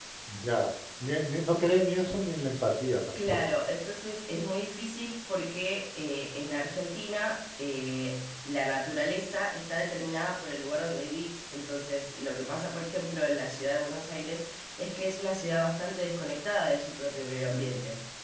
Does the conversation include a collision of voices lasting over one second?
No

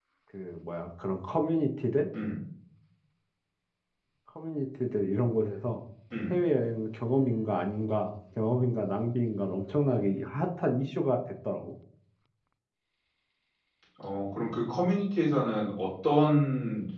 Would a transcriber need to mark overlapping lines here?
No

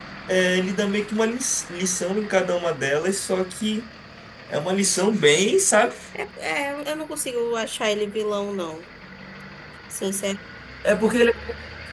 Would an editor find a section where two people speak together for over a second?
No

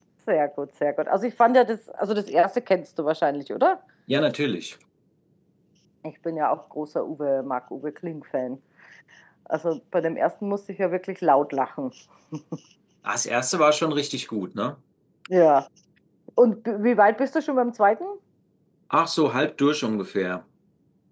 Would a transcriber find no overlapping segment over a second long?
Yes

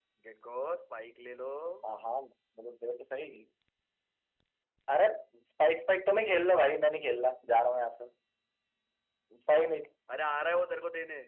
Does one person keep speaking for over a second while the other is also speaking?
No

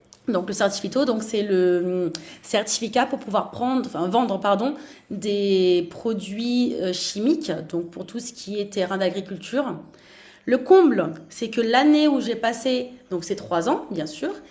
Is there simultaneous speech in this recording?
No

